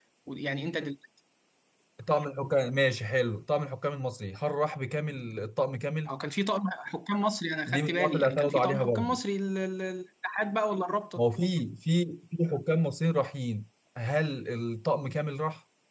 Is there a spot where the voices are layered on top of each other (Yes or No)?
Yes